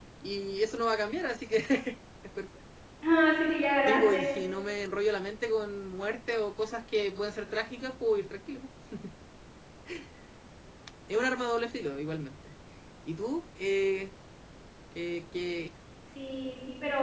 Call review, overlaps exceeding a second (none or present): none